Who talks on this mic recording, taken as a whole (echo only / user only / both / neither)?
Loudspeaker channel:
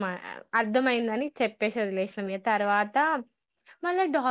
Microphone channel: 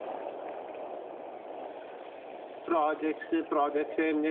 user only